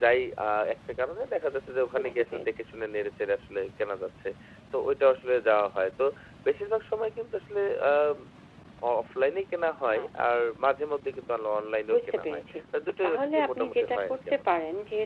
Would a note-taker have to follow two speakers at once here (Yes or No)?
Yes